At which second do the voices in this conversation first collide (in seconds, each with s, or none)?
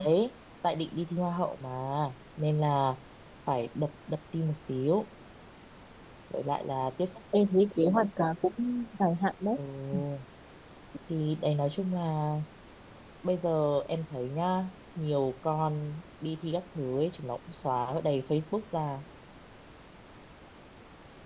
none